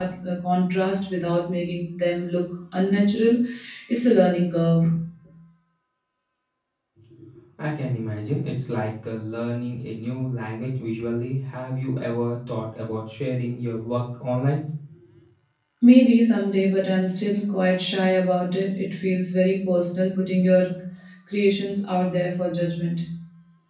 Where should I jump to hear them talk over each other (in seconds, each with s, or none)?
none